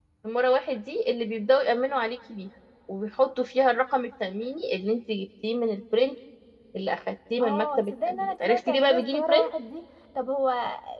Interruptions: present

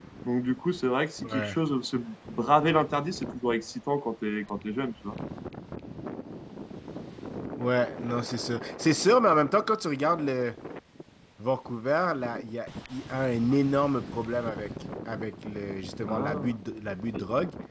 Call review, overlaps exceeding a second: none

